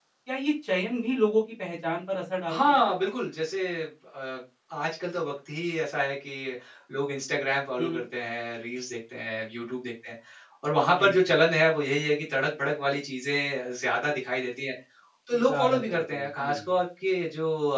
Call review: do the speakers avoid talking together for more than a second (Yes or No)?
No